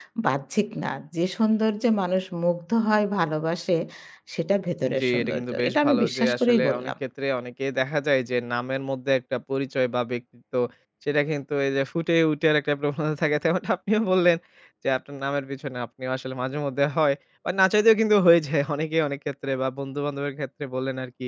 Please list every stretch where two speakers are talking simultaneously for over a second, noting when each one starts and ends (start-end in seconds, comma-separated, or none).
5.0-6.9